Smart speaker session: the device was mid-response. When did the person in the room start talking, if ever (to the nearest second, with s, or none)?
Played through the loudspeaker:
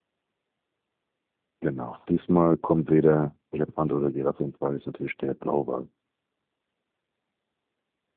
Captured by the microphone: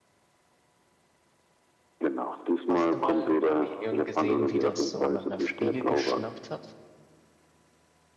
3 s